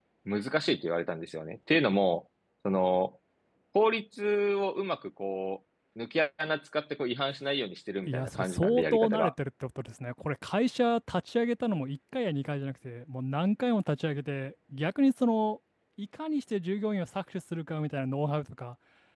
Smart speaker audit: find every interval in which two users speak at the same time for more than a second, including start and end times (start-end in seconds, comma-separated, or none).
8.1-9.3